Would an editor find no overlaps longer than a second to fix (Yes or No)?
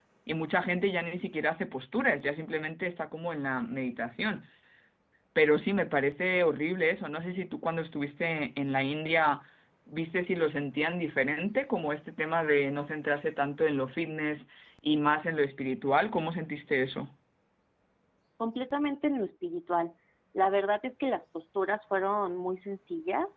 Yes